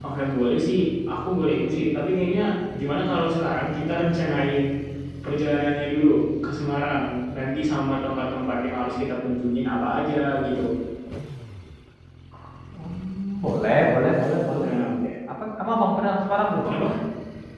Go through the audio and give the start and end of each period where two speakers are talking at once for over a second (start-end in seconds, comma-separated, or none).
none